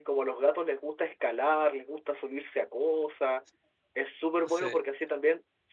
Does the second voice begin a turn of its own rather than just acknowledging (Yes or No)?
No